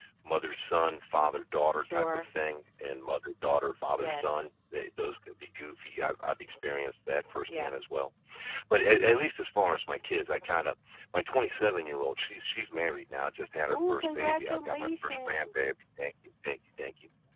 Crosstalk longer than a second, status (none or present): present